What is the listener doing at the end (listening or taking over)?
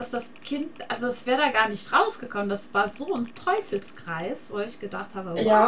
taking over